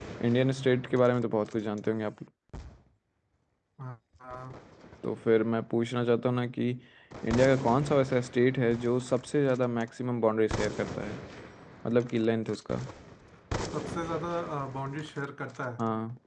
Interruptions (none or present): none